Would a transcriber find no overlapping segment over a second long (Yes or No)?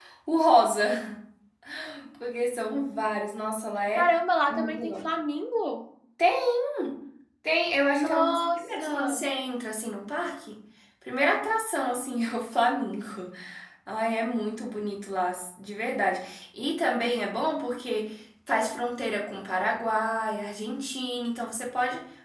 No